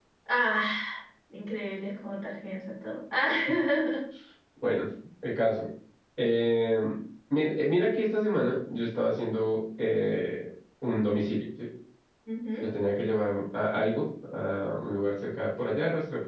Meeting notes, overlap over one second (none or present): none